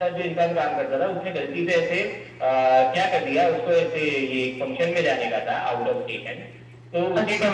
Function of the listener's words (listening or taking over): listening